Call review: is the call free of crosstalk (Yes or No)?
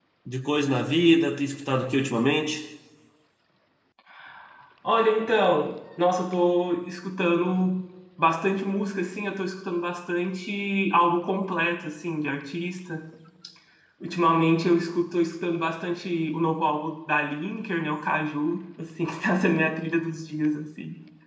Yes